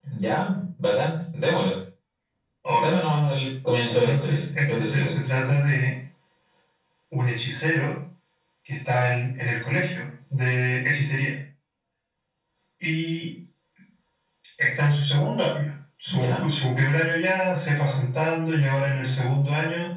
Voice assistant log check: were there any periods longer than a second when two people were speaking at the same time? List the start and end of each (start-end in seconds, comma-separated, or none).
3.9-5.1